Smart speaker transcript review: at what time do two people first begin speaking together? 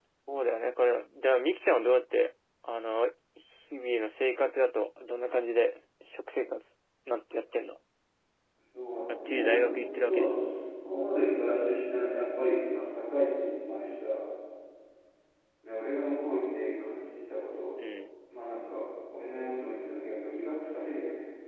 9.1 s

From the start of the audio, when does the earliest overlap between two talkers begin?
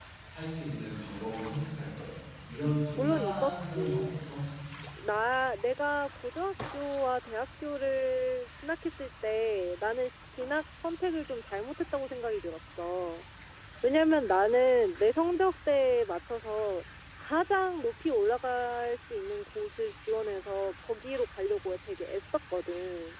3.0 s

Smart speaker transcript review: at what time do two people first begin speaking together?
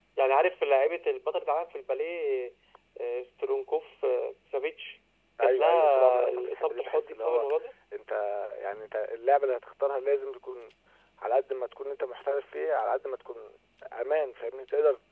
5.4 s

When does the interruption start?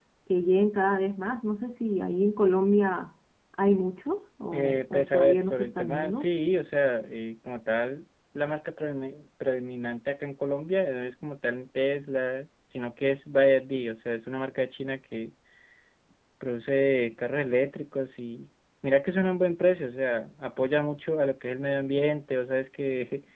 4.5 s

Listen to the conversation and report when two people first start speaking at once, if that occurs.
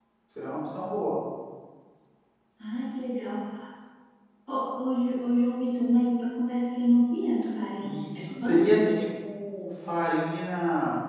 7.8 s

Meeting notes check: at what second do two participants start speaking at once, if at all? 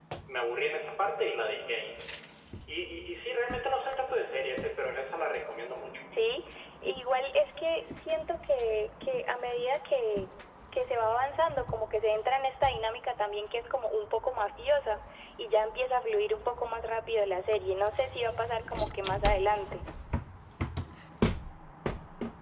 none

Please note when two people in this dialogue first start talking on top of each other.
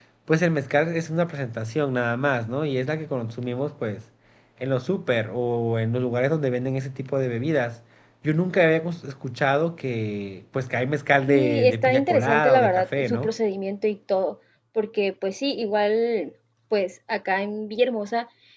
11.3 s

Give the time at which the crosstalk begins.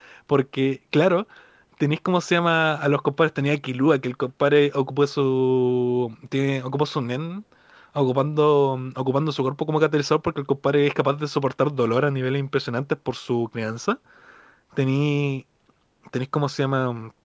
none

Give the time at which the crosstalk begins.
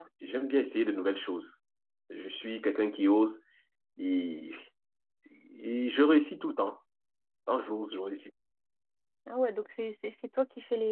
none

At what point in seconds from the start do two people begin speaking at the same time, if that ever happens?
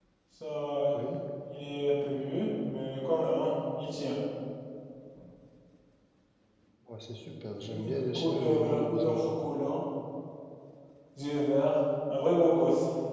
7.6 s

